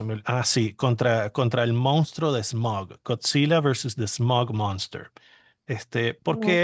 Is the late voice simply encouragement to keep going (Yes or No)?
Yes